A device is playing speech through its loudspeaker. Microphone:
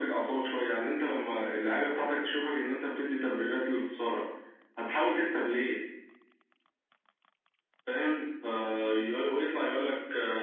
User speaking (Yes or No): No